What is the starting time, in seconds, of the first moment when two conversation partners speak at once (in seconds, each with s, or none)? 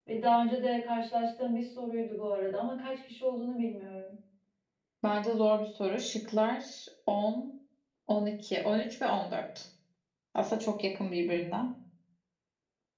none